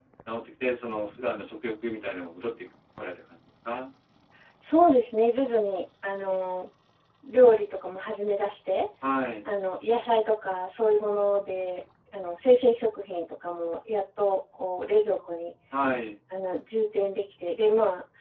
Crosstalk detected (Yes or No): No